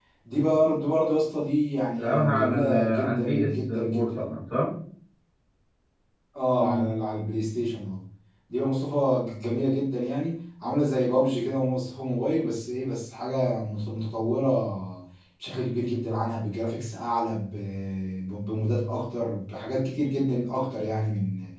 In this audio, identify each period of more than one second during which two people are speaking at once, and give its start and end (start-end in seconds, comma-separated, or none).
2.0-4.2